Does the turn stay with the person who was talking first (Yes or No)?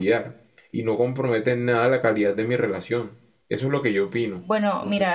No